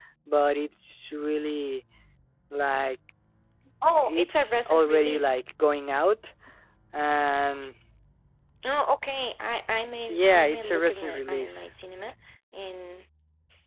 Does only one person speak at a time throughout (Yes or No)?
No